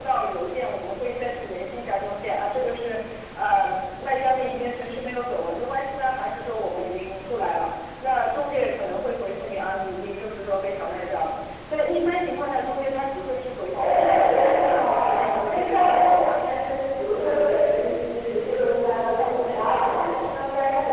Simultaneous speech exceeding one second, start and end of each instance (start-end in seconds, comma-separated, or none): 13.7-16.4